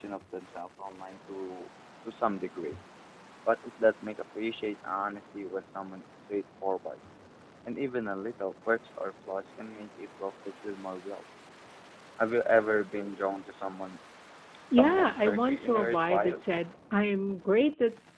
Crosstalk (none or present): present